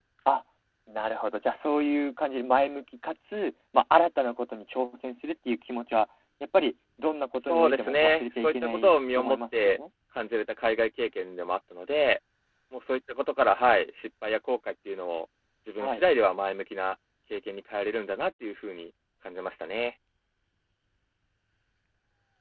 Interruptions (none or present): present